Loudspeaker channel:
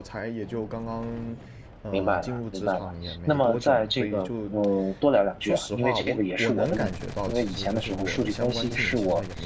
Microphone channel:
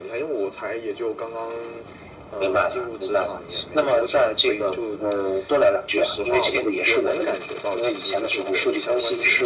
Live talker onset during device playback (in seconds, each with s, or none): none